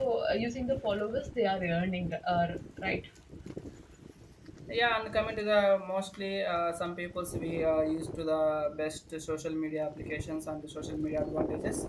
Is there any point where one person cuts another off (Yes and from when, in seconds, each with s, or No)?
No